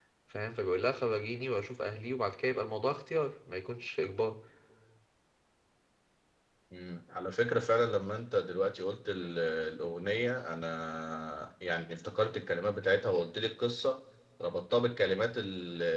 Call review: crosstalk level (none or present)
none